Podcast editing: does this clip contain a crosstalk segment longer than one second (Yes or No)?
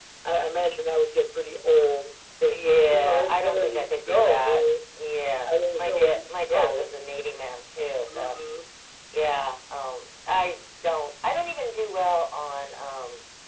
Yes